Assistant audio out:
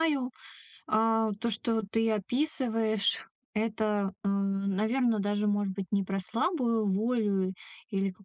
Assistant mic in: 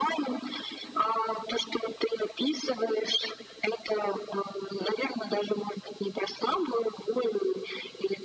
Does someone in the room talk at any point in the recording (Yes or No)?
No